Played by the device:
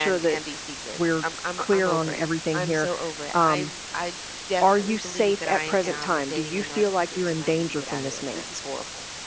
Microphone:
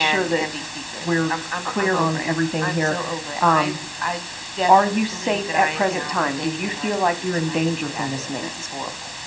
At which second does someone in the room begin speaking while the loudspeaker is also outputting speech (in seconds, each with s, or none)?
none